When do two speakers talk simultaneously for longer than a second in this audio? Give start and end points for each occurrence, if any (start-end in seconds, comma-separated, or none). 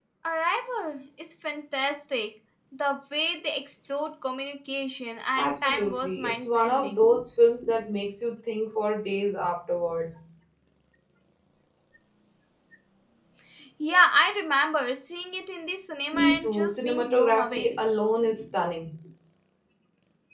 5.4-7.2, 16.1-17.9